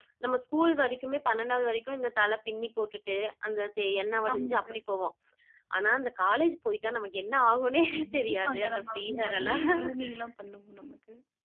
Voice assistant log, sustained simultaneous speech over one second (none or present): present